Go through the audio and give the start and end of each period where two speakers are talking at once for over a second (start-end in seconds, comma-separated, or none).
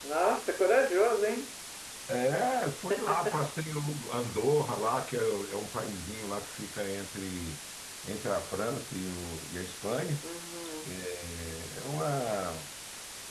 none